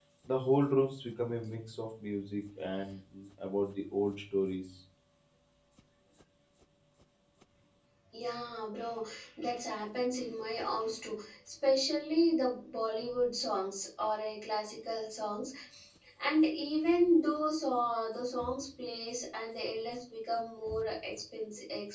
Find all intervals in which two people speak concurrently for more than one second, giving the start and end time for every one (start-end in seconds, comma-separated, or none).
none